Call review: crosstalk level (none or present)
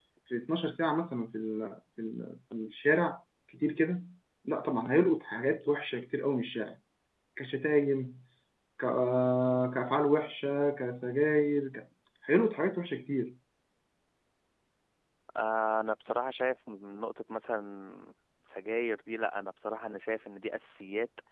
none